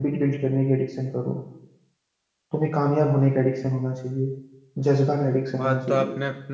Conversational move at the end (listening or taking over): taking over